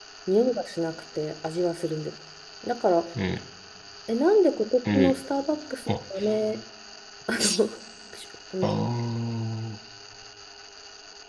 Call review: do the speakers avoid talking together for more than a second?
Yes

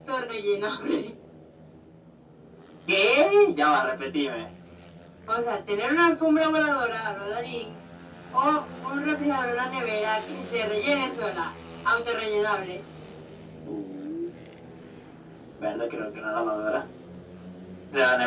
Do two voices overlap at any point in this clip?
No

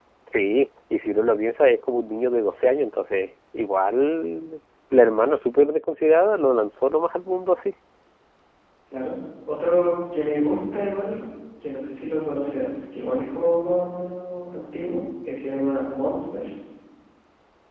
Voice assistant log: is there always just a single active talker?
Yes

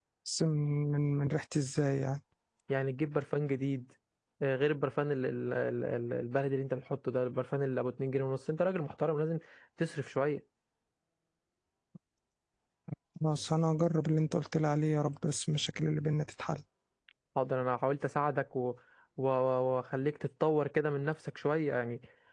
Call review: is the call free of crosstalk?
Yes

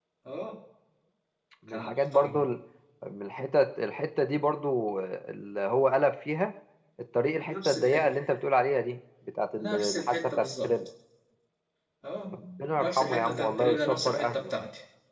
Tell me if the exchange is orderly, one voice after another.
No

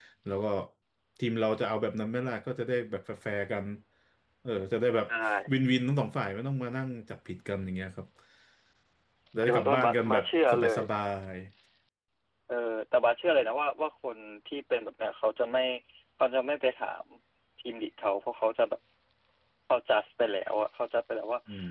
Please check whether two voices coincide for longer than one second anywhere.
Yes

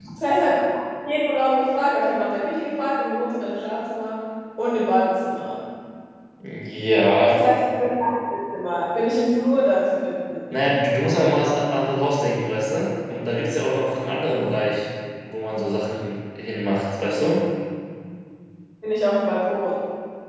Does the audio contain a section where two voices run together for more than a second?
No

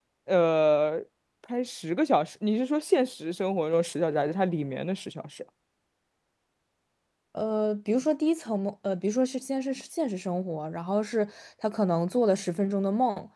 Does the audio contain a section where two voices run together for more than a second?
No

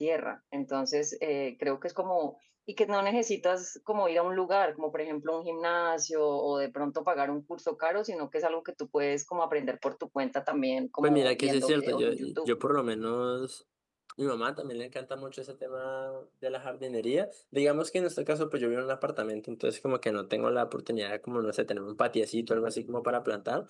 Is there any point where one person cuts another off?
Yes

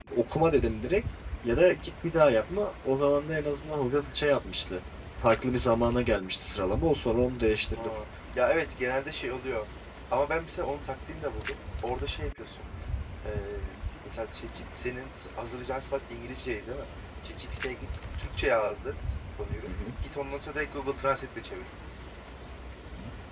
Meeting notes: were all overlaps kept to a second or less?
Yes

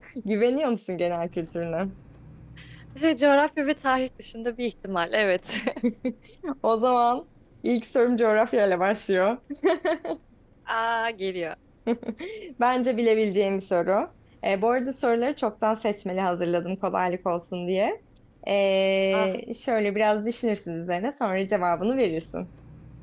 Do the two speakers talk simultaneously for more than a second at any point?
No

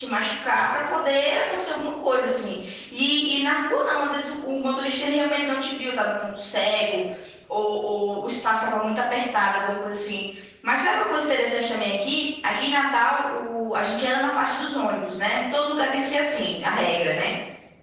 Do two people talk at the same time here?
No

